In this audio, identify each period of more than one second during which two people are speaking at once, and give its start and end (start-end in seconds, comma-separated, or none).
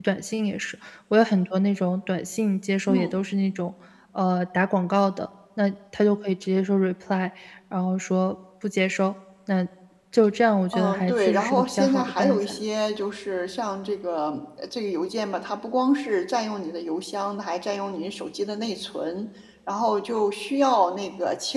10.7-12.6